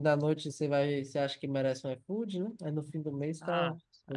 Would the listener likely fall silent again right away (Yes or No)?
No